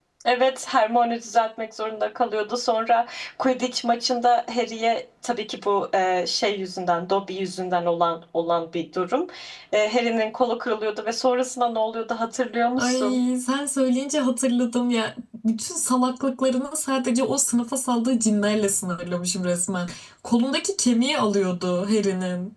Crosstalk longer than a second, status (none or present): none